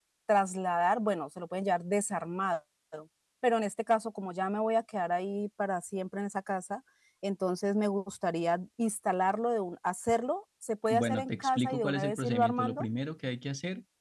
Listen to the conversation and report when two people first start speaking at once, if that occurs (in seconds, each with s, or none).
10.9 s